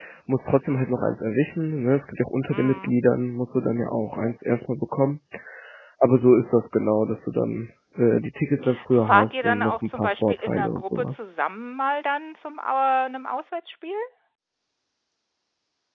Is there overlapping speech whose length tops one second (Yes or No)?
Yes